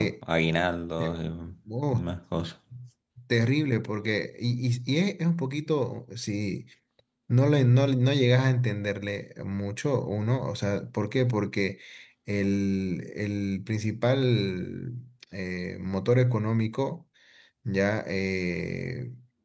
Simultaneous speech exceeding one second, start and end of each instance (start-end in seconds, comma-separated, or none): none